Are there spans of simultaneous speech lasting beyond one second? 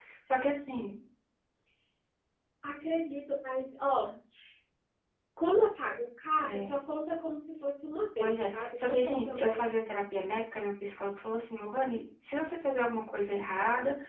Yes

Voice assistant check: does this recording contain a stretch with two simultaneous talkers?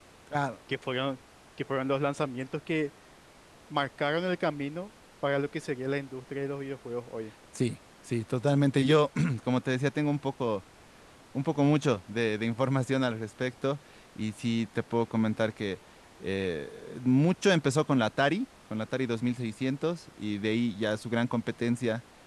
No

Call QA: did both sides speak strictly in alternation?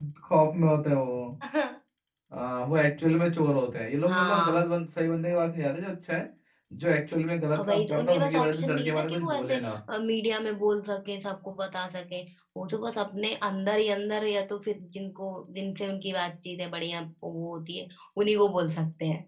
No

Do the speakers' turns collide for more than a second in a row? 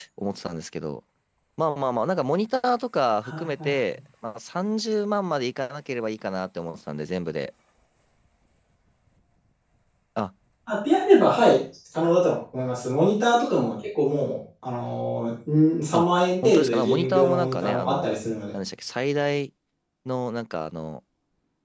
Yes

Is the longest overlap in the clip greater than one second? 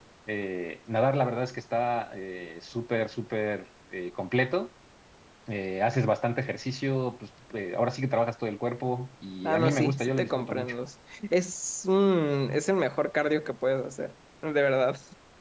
Yes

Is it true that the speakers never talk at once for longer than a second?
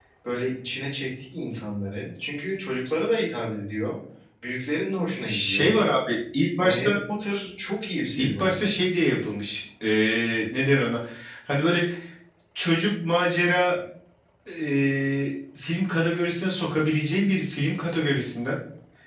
Yes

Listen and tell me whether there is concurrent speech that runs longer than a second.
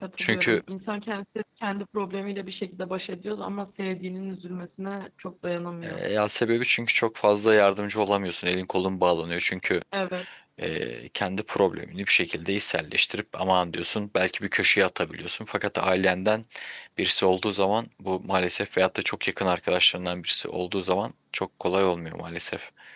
No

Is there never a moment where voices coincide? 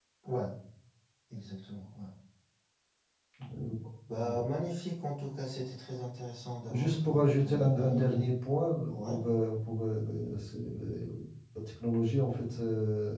No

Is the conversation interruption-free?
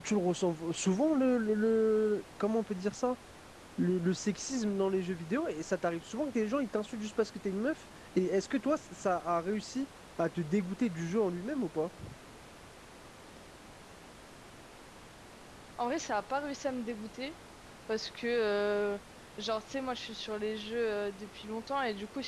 Yes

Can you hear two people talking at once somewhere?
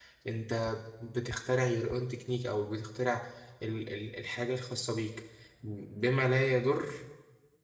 No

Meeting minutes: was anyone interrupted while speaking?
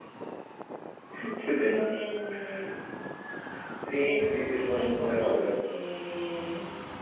Yes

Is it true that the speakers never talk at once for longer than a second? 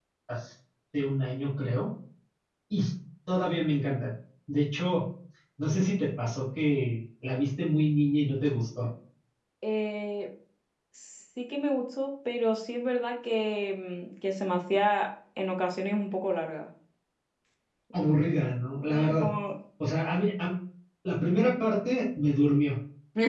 Yes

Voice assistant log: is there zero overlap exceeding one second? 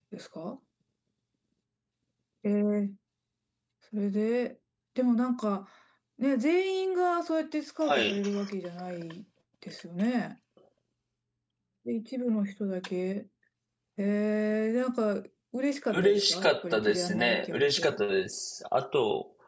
No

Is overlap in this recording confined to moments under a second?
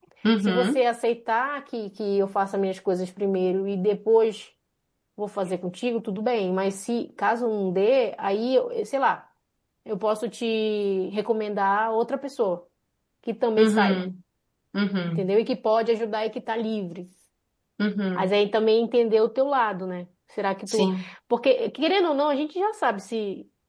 Yes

